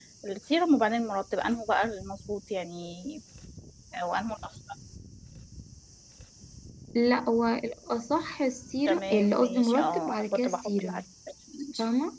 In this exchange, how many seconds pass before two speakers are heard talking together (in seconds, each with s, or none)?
8.9 s